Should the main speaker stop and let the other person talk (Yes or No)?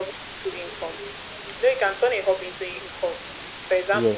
No